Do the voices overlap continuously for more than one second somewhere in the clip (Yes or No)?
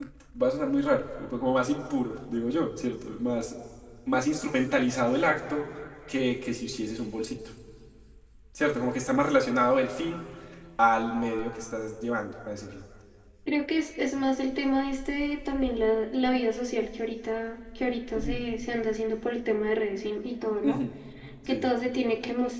No